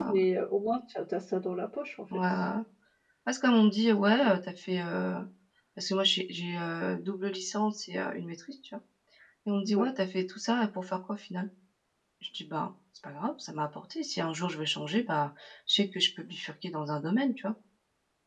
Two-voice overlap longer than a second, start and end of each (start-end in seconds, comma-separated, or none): none